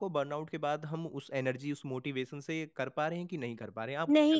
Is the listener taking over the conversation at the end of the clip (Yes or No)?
Yes